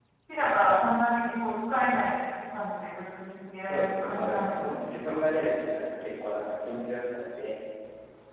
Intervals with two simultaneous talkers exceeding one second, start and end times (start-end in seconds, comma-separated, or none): 3.6-5.2